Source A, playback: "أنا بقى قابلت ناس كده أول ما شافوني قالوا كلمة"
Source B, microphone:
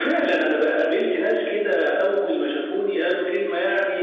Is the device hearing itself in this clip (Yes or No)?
Yes